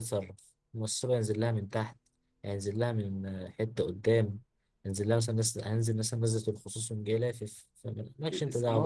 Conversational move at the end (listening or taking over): taking over